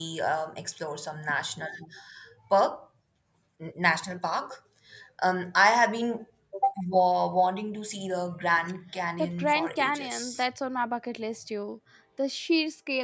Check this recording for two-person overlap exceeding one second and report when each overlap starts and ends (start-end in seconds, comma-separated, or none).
9.2-10.4